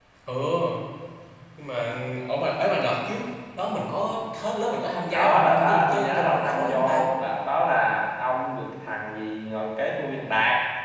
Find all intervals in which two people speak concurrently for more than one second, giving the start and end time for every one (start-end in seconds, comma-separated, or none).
5.1-7.0